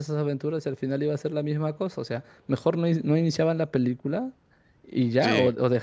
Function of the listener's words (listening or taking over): listening